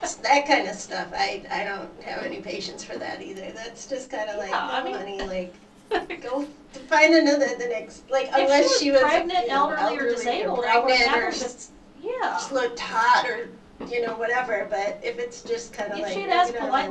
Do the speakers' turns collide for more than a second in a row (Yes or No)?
Yes